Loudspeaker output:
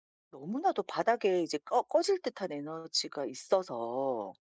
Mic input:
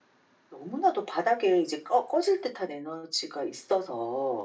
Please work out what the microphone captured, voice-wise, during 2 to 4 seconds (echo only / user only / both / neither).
echo only